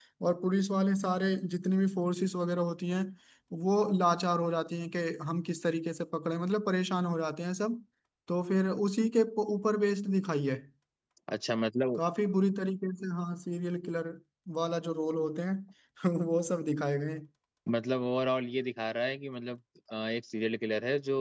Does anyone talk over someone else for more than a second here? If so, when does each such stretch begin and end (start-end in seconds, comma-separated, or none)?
none